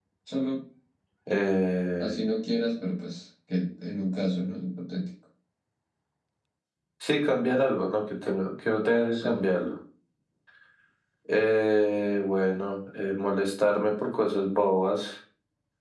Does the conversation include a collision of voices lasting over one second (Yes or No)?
No